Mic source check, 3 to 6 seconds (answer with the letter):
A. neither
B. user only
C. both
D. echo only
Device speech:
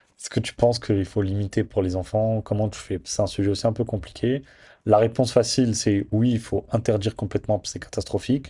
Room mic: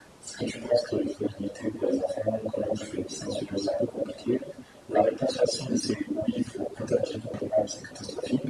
D